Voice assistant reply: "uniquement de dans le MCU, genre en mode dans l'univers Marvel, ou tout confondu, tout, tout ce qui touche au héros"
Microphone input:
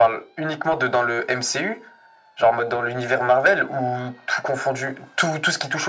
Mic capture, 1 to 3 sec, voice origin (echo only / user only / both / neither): echo only